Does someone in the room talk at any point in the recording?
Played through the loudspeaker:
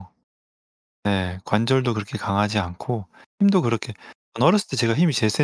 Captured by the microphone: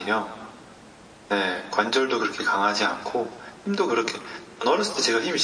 No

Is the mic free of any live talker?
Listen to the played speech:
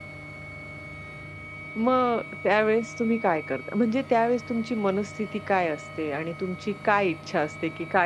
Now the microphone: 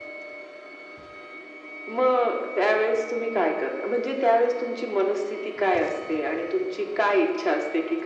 Yes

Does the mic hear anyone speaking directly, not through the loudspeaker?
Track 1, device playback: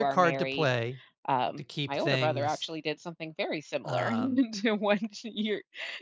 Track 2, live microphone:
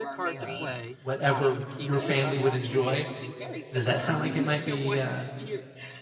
Yes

